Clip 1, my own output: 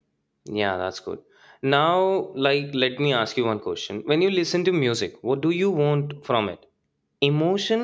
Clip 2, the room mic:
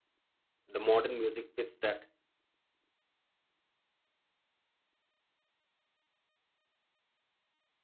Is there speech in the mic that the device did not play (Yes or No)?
Yes